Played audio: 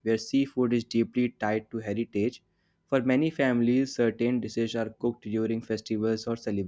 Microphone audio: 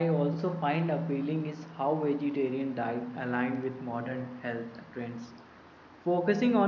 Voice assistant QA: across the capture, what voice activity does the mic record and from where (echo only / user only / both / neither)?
user only